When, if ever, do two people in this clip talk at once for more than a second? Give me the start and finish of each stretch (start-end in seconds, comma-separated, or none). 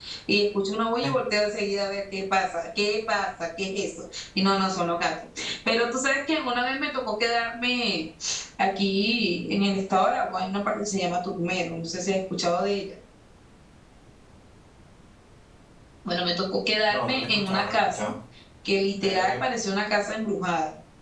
16.9-18.1